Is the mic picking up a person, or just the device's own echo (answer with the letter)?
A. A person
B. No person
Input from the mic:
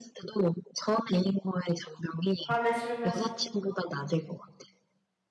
A